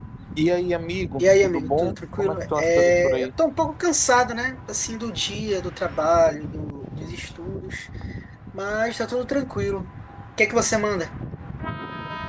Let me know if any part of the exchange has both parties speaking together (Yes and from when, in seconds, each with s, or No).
Yes, from 1.2 s